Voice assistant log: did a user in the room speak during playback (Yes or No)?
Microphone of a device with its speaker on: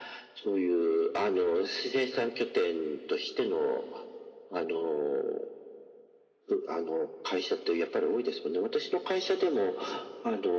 No